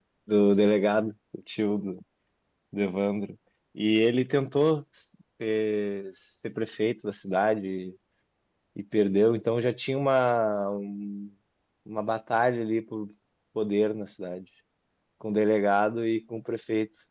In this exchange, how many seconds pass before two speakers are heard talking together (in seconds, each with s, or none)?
none